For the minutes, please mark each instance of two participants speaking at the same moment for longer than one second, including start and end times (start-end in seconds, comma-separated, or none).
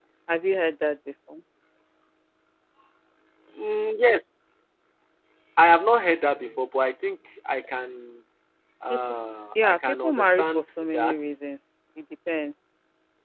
9.6-11.2